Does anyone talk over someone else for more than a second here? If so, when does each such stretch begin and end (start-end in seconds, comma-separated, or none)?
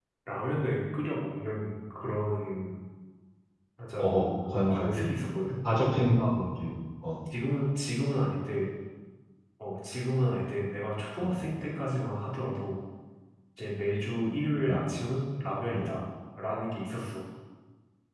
none